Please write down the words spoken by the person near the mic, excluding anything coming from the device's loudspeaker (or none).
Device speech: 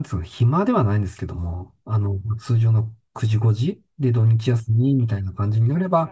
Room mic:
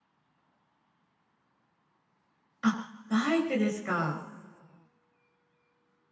あバイクですか